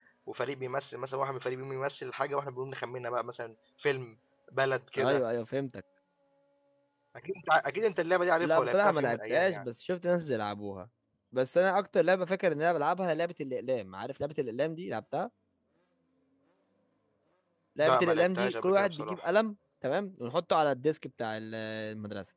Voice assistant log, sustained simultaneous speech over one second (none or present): present